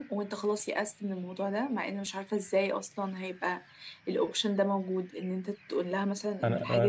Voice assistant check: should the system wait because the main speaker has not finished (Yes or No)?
No